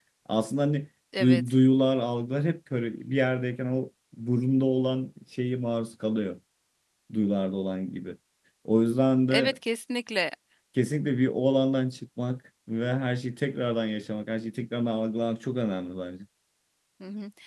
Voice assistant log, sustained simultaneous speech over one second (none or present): none